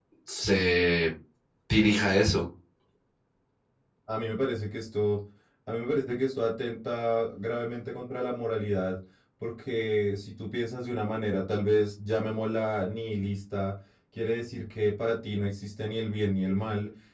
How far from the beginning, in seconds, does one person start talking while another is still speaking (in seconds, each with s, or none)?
none